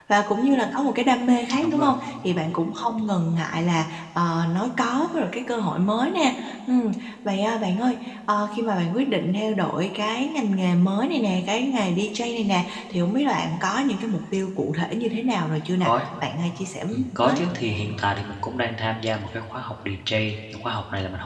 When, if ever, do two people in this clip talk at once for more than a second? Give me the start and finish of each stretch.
none

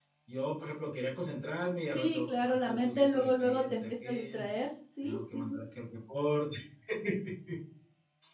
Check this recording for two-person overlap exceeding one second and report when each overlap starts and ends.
1.9-4.5

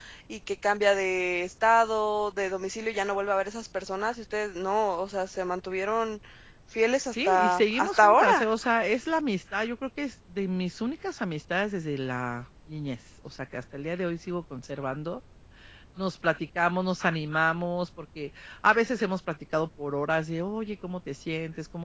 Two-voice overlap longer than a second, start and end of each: 7.3-8.5

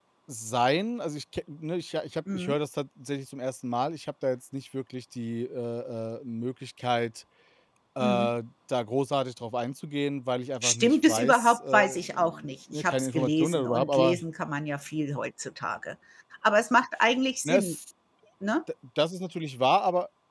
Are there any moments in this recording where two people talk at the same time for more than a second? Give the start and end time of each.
10.6-14.2

